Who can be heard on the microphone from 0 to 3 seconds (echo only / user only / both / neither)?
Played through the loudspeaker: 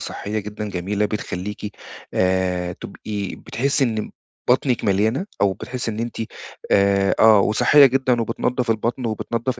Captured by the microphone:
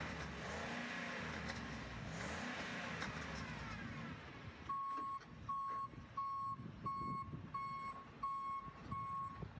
neither